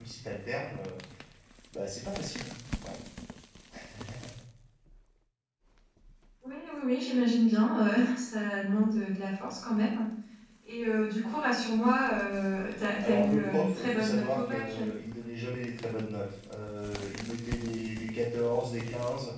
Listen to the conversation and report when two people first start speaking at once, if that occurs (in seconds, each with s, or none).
13.0 s